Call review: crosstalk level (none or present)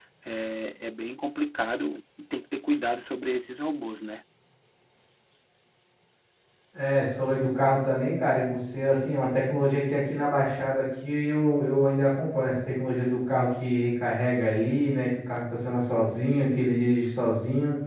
none